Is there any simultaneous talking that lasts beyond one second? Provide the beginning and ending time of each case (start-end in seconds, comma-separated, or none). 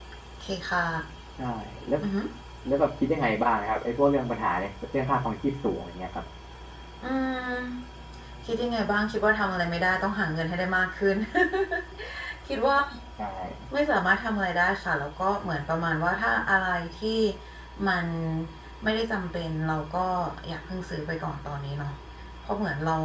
none